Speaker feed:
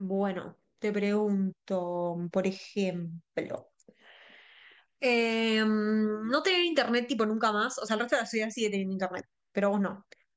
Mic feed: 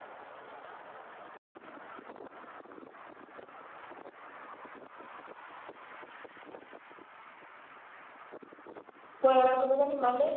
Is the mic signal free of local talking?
No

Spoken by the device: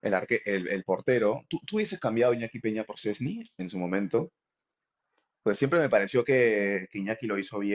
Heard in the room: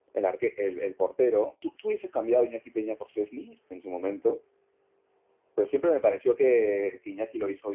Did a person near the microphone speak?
No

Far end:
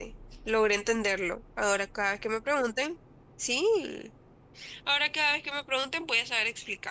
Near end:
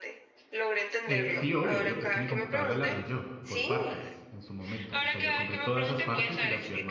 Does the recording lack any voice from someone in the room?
No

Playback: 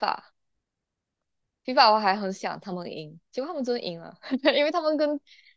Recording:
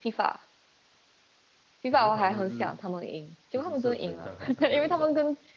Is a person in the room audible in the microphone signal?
Yes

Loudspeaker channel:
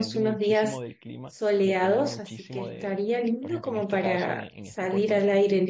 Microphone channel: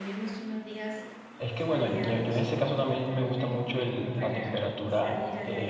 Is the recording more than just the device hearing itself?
Yes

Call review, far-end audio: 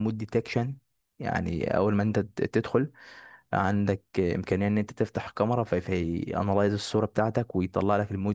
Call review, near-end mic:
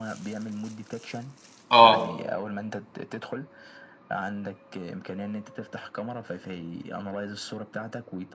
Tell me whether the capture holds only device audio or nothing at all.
No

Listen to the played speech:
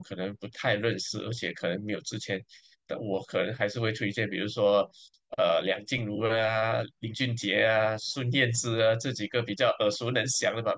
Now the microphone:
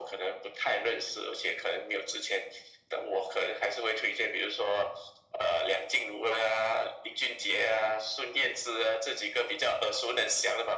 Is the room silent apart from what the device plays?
Yes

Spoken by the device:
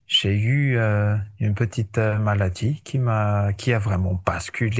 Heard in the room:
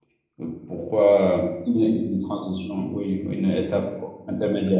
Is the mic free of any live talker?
No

